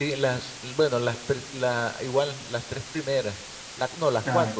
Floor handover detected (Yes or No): No